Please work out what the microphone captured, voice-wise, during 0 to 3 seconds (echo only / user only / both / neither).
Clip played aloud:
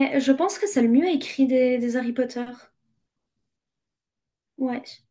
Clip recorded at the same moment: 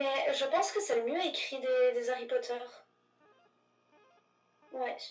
echo only